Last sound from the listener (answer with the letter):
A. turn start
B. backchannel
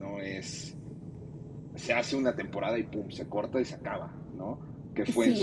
B